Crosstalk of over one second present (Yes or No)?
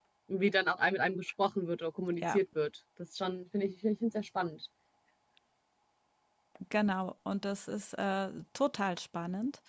No